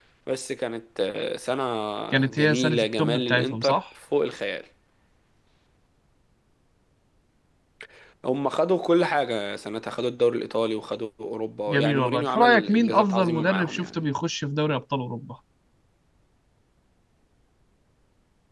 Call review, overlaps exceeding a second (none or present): present